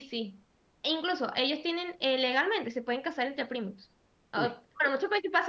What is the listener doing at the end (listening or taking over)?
listening